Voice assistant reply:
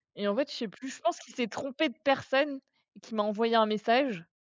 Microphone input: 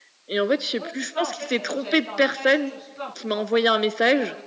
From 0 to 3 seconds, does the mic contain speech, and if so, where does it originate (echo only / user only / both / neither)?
both